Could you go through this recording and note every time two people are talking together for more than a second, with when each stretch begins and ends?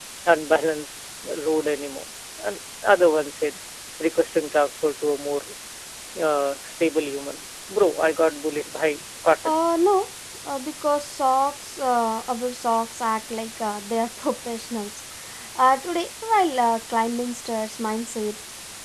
none

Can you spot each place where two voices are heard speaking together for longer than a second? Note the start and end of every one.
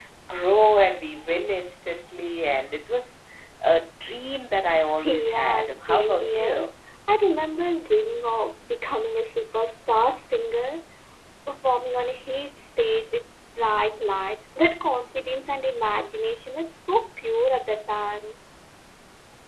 5.0-6.7

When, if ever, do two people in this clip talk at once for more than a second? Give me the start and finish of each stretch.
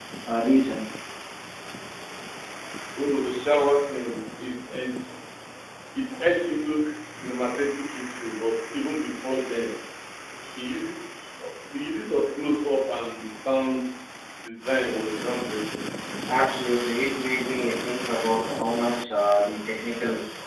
none

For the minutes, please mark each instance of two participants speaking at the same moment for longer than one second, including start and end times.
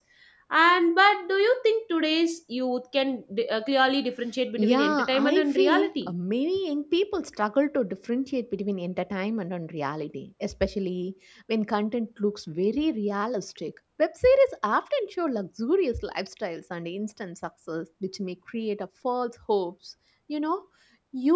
4.6-6.1

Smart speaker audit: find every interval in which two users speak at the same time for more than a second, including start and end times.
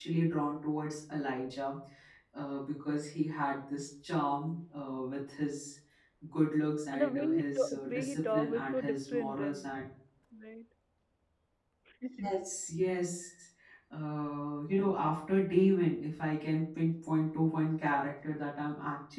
6.9-9.6

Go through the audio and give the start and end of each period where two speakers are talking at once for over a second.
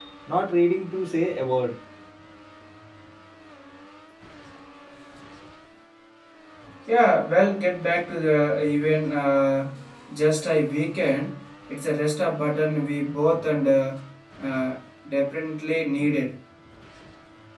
none

